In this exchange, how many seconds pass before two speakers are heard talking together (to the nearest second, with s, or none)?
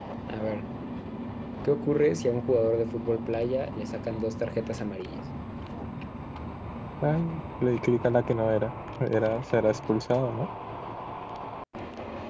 none